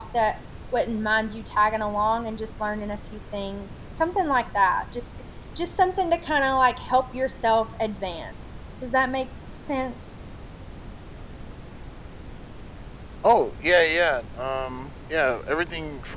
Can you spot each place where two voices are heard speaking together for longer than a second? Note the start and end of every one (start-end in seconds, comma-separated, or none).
none